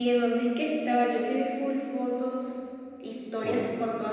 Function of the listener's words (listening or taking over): listening